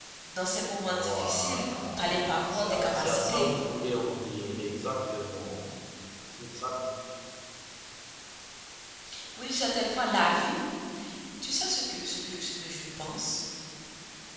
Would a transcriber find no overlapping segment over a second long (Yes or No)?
No